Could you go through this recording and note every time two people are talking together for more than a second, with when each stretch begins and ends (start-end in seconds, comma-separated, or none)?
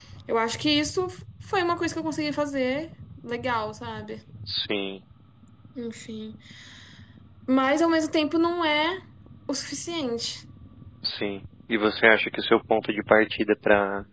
none